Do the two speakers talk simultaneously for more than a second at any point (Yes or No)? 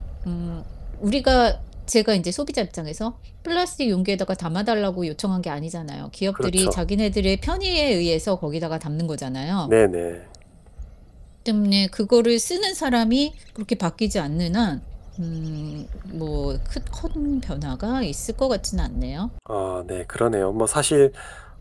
No